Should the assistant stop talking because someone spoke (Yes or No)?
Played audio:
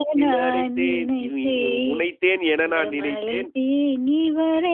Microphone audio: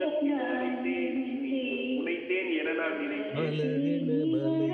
Yes